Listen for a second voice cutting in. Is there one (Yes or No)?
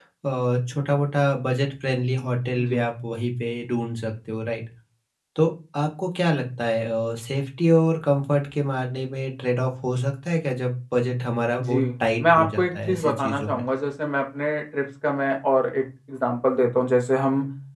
Yes